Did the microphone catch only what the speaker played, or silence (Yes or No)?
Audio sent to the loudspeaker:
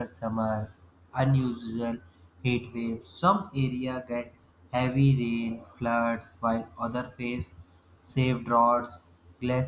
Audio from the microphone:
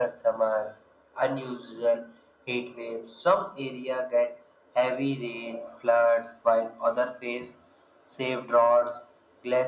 Yes